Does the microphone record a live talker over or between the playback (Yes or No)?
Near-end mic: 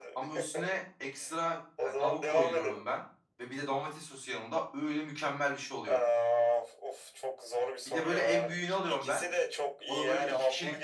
Yes